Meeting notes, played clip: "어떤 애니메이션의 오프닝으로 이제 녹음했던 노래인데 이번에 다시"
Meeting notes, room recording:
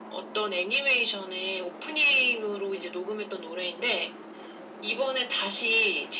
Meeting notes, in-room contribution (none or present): none